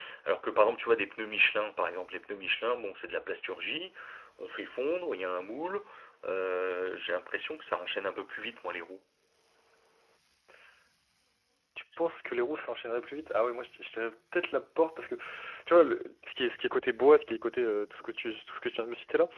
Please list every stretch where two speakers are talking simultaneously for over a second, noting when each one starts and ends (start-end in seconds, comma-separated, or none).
none